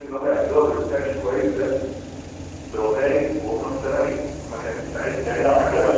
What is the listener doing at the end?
taking over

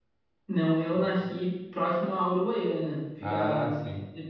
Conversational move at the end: listening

